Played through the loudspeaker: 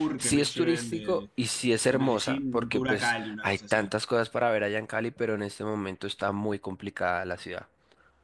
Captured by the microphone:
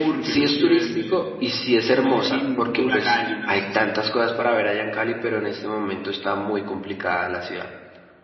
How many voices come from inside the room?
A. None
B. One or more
A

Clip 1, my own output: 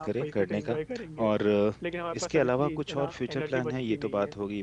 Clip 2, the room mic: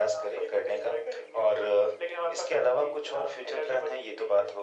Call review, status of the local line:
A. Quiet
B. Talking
A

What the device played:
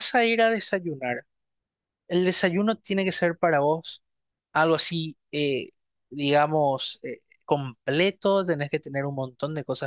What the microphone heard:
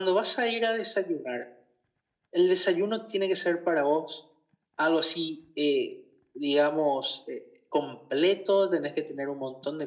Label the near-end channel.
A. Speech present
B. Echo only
B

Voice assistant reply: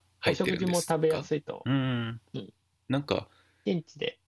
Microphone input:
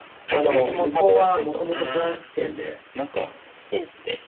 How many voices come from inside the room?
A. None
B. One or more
B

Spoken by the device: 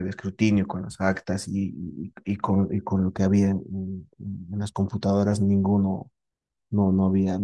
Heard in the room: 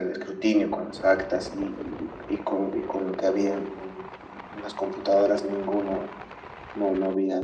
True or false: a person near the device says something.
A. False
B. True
A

